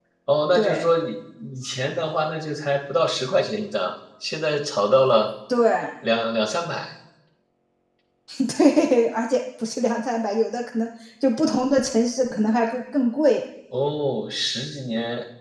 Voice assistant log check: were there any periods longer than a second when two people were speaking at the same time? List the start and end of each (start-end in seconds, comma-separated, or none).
none